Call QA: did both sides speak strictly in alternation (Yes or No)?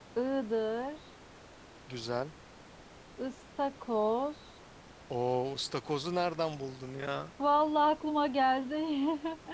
Yes